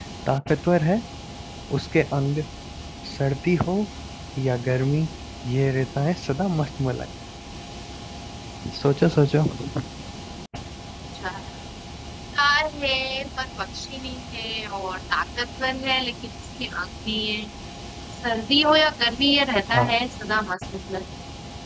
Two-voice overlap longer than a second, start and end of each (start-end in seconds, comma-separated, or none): none